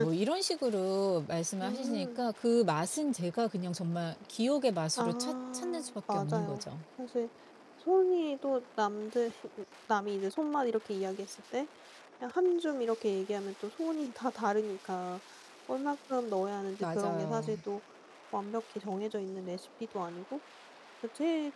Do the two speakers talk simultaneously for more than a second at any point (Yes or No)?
Yes